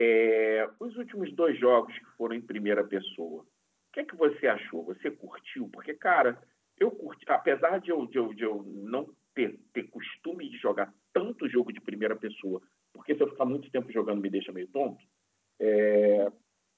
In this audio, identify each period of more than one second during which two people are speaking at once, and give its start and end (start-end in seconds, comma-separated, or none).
none